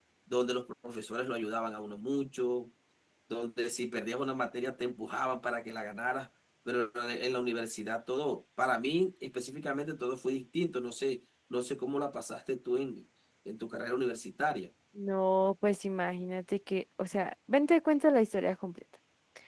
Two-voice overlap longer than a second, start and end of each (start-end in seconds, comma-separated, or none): none